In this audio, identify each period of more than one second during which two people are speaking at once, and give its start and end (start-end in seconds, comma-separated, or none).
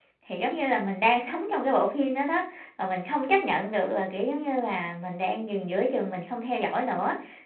none